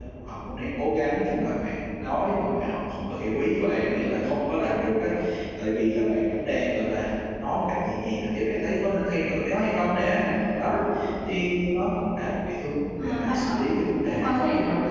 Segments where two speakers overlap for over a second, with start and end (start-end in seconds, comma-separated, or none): 13.0-14.4